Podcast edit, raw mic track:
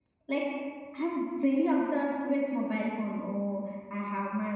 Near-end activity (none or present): present